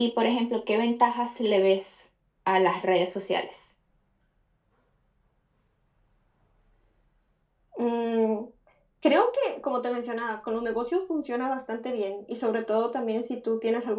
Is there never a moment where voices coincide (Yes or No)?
Yes